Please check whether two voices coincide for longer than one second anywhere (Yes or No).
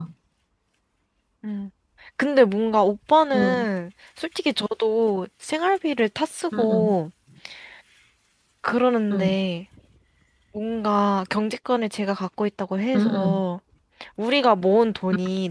No